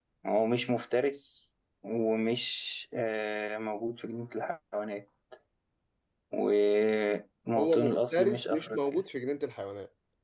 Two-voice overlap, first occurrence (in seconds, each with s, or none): 7.6 s